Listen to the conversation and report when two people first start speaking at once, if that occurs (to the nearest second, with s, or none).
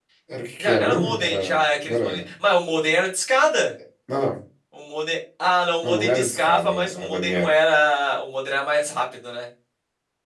1 s